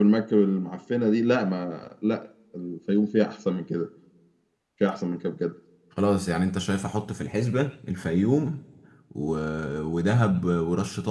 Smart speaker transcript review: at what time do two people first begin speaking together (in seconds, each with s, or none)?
none